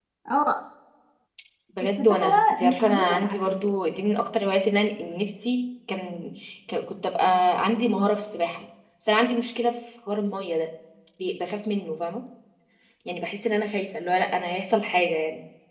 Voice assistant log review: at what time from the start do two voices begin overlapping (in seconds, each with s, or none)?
1.8 s